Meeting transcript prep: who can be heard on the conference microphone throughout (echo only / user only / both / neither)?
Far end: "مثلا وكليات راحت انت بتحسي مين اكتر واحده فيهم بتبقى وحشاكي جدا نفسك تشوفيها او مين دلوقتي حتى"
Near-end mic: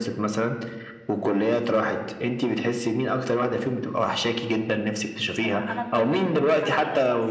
both